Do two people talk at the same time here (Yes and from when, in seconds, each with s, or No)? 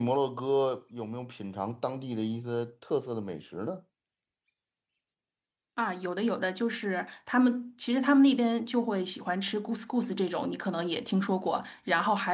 No